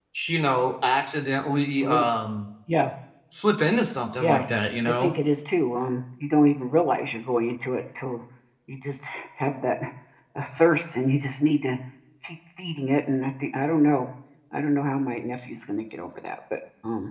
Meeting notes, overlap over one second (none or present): none